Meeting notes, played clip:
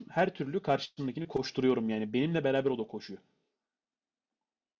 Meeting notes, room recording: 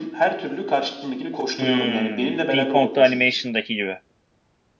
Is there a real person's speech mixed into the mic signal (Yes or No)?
Yes